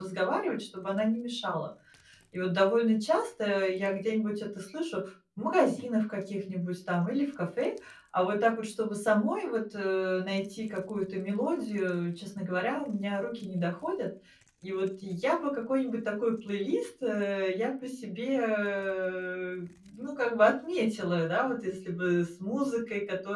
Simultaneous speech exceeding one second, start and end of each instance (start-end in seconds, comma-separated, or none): none